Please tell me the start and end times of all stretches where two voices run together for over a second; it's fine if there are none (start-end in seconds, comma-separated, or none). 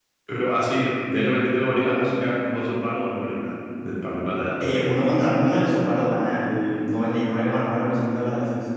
none